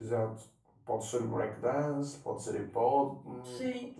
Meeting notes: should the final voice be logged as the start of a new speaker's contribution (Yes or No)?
Yes